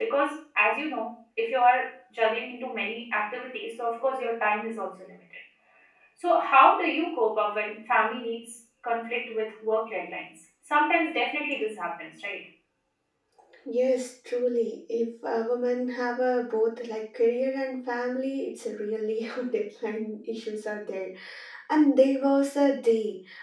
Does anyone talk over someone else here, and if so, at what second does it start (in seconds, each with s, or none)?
none